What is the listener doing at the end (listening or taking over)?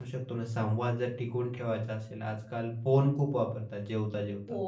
listening